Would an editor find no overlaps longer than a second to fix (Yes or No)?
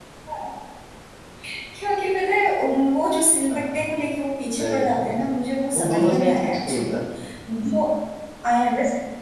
No